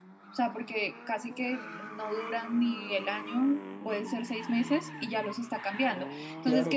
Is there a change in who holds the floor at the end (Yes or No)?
Yes